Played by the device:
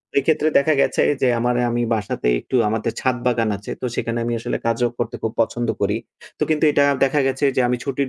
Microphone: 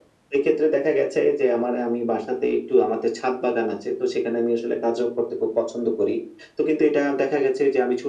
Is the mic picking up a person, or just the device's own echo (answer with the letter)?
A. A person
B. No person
B